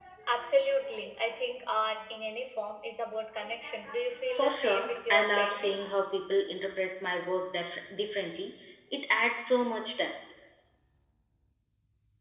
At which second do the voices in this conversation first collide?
4.3 s

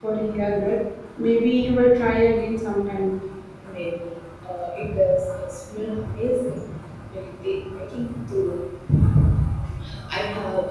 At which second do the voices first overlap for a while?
none

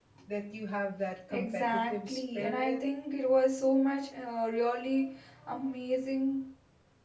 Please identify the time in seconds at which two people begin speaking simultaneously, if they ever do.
1.3 s

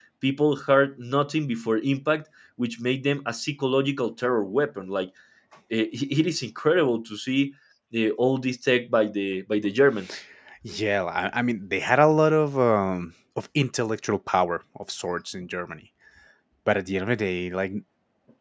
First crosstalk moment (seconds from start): none

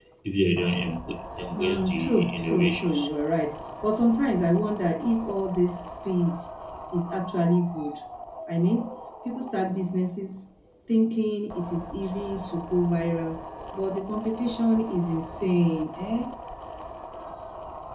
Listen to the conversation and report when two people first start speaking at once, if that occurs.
1.5 s

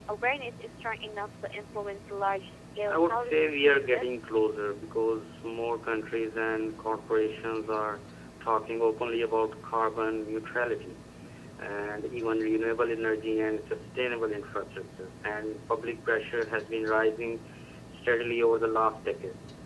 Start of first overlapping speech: 2.9 s

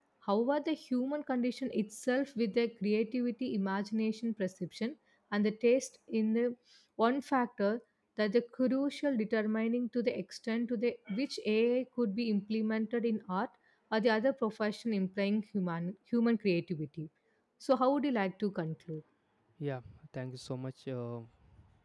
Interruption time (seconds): none

